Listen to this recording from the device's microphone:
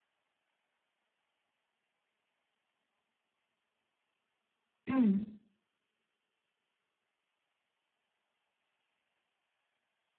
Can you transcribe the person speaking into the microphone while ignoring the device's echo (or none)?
嗯。